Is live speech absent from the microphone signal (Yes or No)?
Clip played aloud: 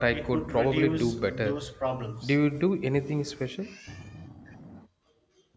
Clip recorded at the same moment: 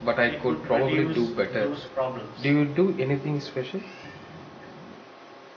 Yes